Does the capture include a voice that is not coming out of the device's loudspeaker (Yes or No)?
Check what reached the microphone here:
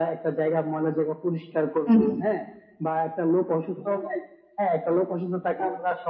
Yes